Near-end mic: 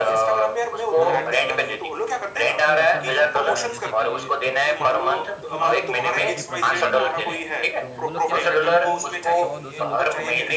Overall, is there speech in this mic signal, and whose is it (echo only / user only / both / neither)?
both